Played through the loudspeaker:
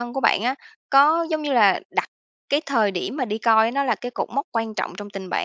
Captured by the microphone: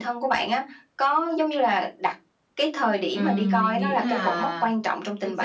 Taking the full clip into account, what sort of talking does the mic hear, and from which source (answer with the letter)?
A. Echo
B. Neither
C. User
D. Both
D